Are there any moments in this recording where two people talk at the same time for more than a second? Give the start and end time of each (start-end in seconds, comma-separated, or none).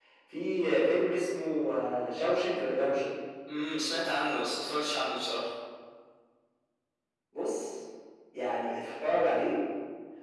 none